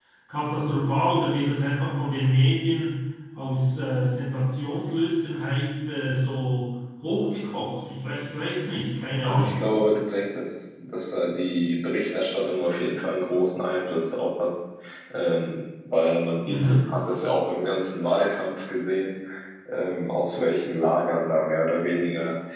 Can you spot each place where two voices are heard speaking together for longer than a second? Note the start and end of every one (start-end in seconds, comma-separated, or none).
none